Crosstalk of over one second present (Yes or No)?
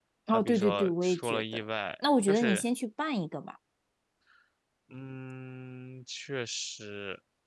Yes